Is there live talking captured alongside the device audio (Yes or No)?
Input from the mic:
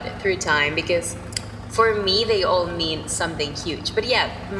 No